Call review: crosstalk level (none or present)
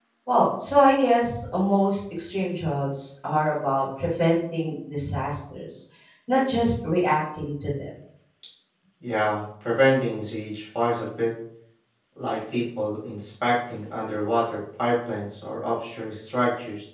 none